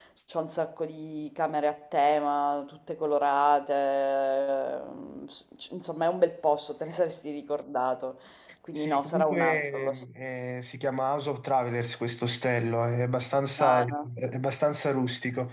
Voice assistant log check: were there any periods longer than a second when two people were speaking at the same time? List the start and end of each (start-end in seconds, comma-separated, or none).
8.8-10.1